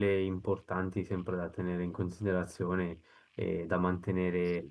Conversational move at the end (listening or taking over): listening